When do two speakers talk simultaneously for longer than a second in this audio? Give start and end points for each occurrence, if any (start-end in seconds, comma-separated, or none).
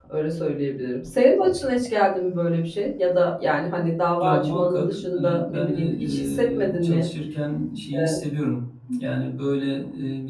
4.2-7.1